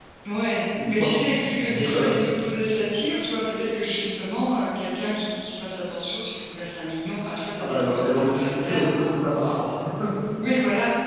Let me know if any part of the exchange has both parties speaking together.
Yes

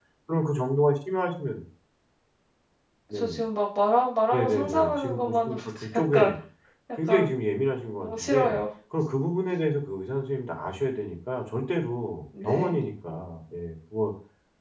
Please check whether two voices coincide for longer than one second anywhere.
Yes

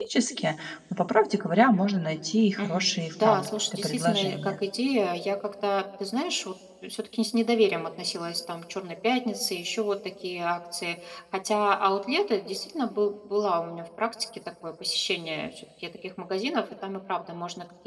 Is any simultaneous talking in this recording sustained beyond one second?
Yes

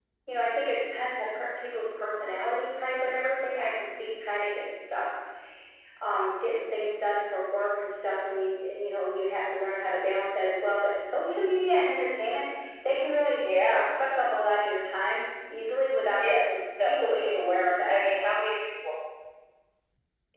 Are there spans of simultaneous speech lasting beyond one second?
Yes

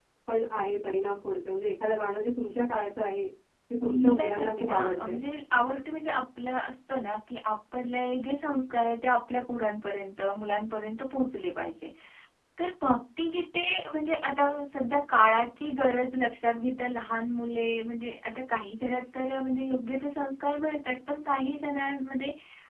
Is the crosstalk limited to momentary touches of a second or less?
No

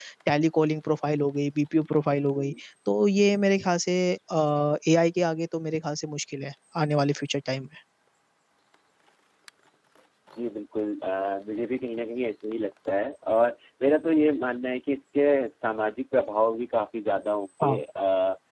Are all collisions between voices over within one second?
Yes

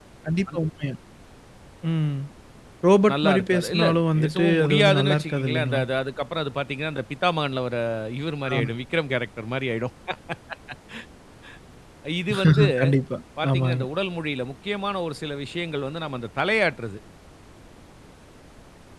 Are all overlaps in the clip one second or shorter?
No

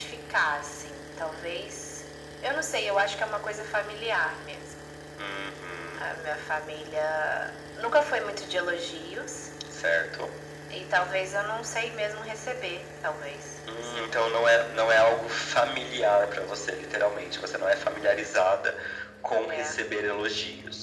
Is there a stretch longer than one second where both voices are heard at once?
No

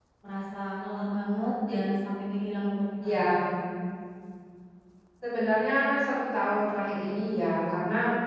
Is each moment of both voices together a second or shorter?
Yes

